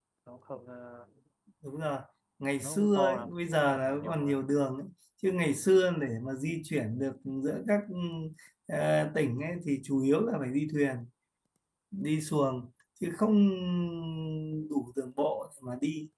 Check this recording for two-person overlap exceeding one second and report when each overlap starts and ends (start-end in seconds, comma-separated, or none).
2.6-4.4